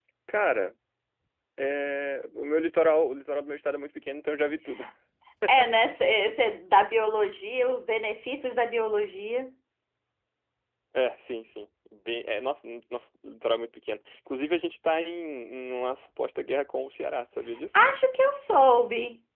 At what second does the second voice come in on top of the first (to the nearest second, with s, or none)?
none